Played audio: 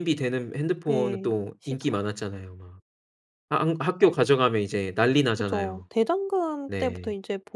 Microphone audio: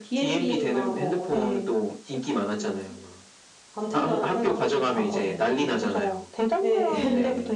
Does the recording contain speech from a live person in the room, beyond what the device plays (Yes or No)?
Yes